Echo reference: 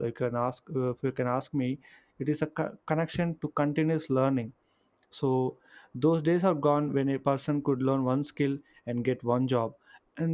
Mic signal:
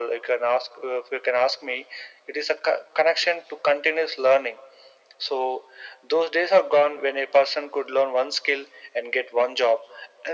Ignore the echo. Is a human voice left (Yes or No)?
No